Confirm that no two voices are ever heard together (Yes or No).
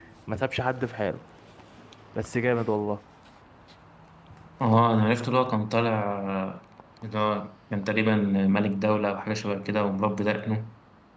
Yes